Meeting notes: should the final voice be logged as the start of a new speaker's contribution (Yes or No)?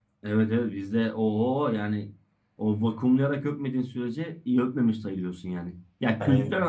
No